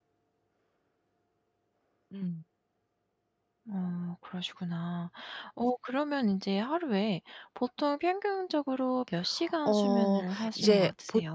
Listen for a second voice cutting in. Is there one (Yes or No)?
Yes